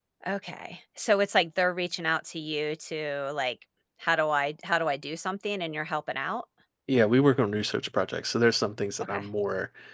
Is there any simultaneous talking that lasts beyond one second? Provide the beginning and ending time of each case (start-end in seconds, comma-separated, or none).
none